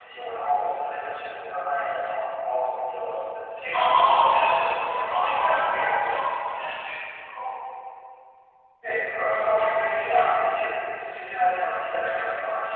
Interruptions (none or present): present